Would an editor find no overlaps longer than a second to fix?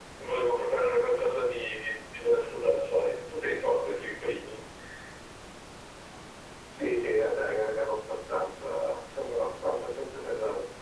Yes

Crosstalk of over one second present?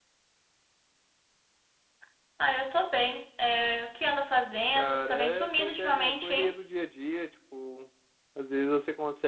Yes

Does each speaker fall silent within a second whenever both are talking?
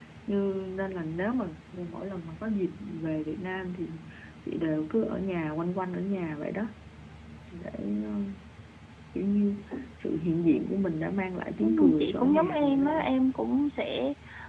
No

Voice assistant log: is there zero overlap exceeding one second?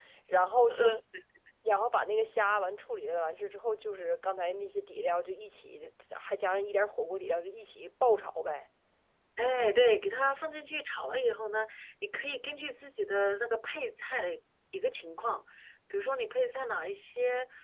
Yes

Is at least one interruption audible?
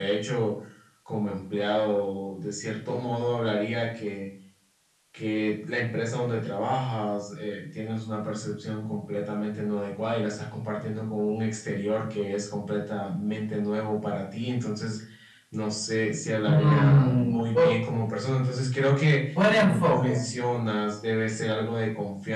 Yes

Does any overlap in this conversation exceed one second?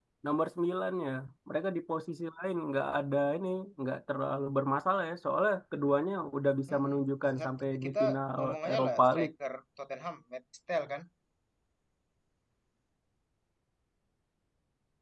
Yes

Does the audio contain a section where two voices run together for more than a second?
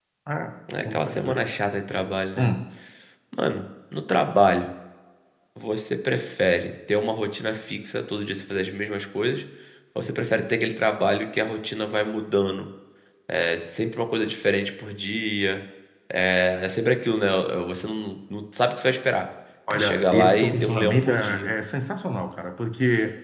Yes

